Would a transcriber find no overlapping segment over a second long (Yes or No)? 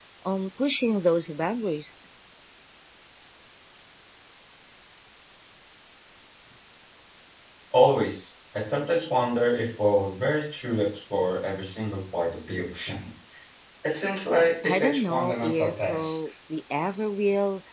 No